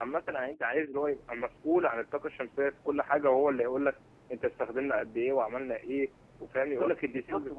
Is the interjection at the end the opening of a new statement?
Yes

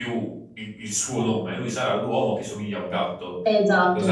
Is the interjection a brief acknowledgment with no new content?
No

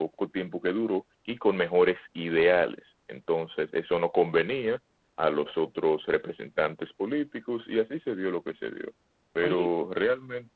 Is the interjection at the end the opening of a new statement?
No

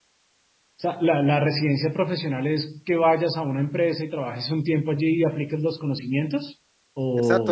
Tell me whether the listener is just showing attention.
No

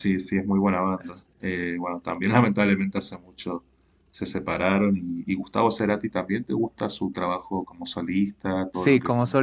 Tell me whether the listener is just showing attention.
No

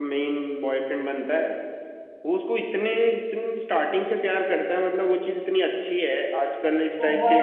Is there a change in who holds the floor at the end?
No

